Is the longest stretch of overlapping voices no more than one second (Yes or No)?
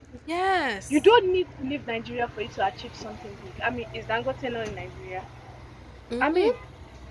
Yes